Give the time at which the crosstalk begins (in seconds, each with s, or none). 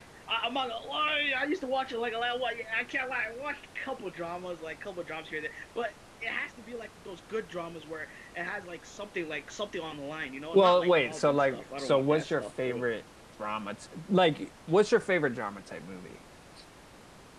10.5 s